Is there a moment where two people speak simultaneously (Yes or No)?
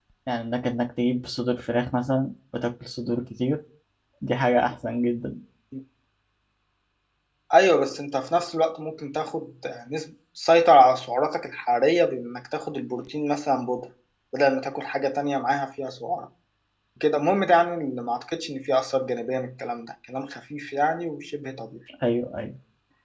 No